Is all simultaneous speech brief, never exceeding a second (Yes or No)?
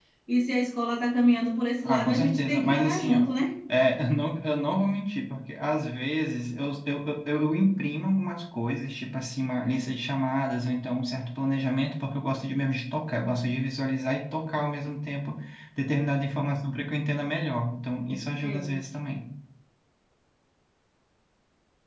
No